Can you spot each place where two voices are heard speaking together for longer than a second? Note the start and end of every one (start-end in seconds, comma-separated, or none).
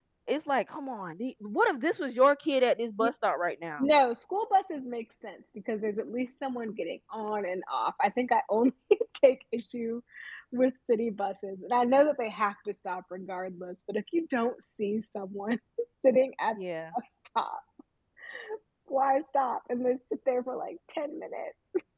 none